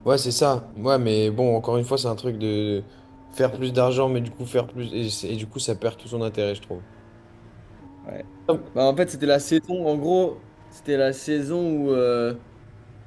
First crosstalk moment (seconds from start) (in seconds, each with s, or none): none